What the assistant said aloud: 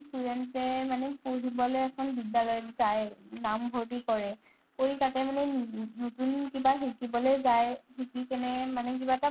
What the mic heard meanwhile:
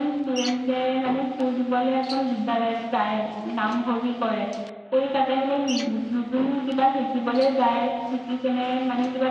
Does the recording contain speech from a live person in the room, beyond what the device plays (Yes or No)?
No